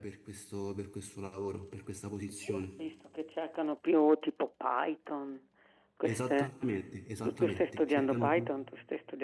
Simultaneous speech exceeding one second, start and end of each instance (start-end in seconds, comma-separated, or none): 7.2-8.5